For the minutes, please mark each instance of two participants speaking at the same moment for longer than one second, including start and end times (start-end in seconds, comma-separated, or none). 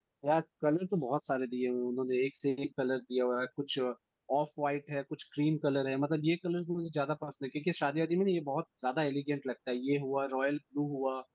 none